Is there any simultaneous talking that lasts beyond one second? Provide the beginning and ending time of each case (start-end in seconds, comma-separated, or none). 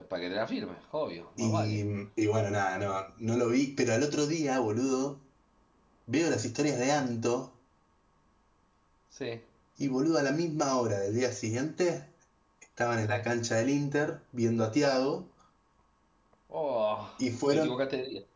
none